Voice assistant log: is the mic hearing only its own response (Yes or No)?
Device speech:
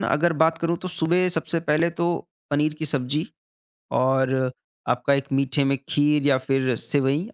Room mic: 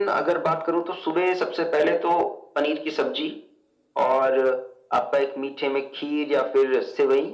Yes